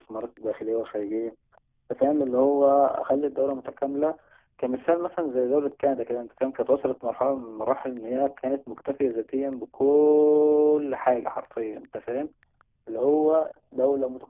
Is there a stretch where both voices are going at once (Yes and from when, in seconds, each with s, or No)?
No